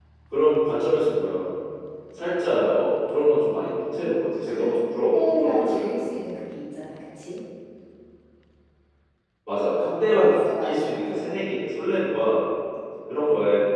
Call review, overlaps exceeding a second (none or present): present